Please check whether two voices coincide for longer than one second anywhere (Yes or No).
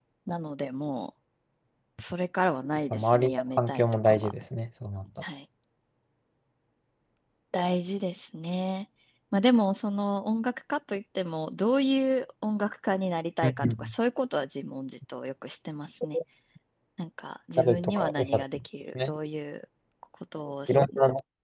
Yes